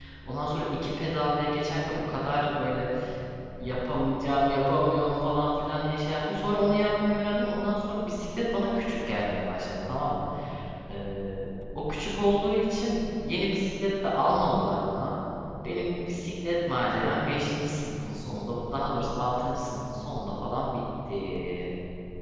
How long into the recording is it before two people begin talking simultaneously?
none

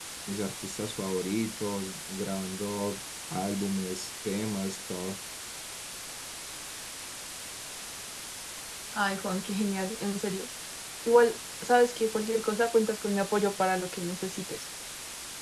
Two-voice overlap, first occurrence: none

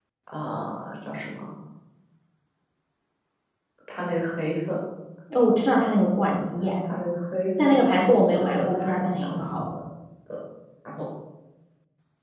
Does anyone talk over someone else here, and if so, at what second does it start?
8 s

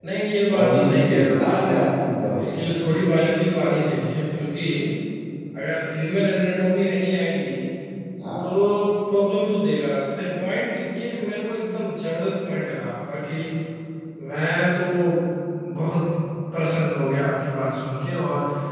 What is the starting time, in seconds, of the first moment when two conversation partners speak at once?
1 s

